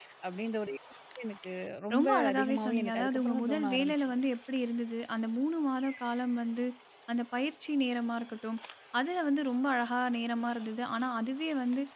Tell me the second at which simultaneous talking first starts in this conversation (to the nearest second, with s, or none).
2 s